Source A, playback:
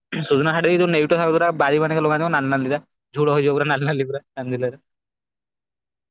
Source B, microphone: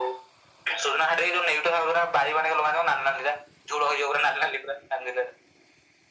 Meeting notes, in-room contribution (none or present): none